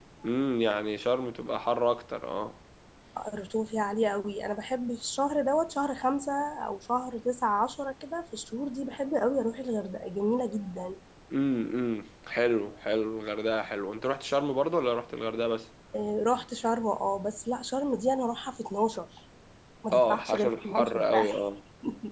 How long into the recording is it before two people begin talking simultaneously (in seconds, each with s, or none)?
19.9 s